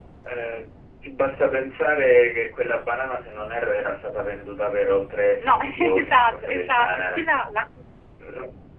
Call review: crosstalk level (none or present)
present